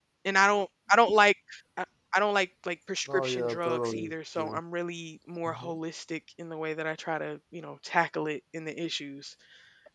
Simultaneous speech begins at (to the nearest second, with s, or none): 3 s